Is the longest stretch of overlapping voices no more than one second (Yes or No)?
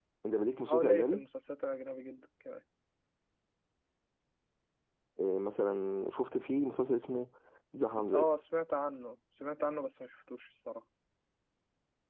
Yes